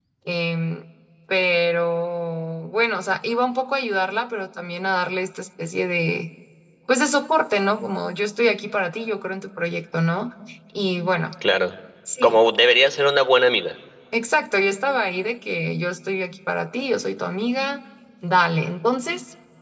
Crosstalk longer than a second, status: none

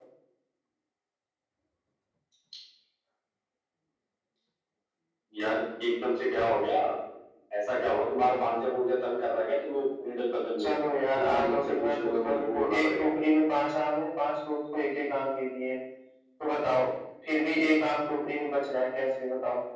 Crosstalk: present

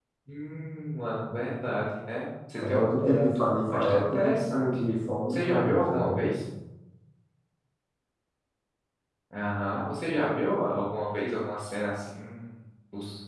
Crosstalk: present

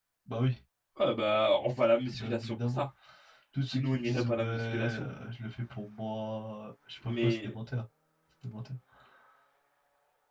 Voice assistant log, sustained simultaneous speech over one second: present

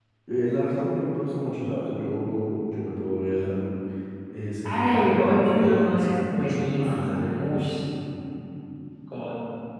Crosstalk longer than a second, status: present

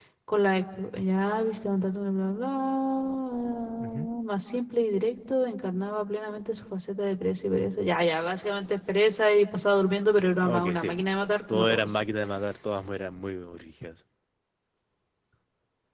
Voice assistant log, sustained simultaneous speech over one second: none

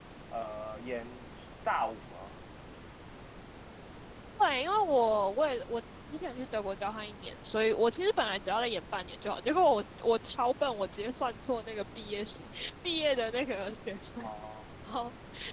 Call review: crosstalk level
none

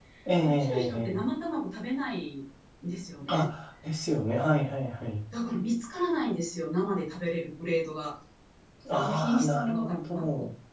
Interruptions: present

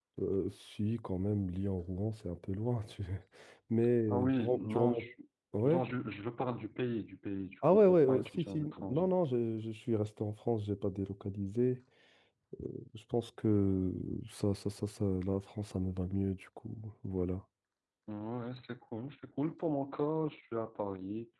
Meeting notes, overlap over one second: present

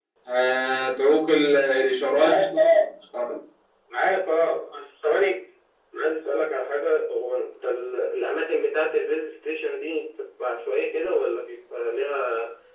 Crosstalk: none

